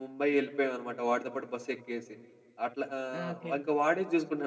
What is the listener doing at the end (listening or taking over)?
listening